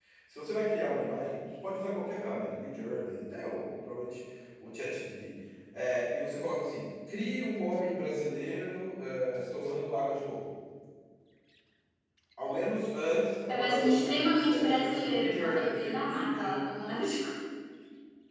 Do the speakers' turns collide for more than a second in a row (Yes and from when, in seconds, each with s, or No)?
Yes, from 13.5 s